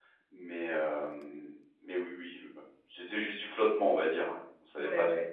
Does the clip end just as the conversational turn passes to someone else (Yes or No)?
Yes